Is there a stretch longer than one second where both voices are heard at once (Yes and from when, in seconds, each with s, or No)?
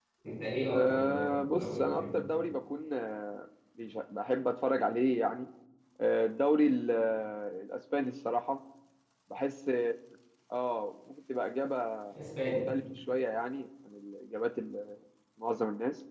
Yes, from 0.7 s